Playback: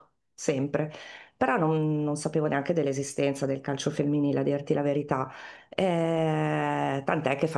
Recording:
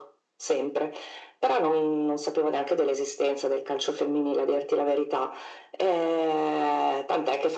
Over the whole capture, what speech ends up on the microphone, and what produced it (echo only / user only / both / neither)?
echo only